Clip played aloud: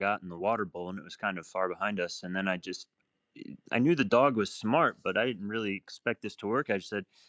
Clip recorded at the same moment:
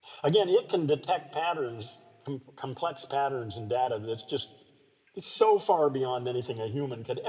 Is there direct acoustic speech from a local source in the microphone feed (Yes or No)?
Yes